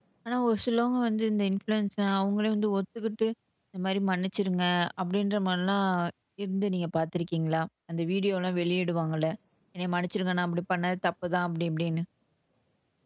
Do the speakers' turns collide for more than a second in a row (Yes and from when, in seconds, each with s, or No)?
No